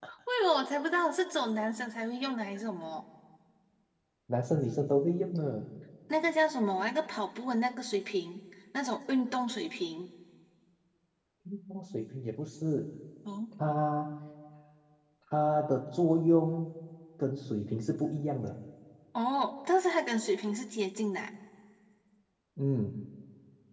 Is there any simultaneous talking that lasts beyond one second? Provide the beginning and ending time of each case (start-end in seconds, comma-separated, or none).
none